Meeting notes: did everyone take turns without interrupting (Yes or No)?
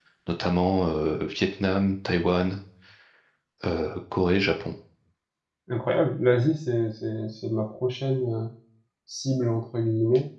Yes